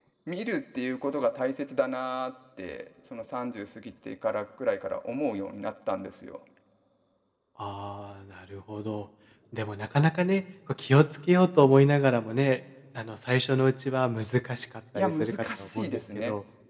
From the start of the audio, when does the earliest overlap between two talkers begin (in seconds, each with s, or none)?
14.9 s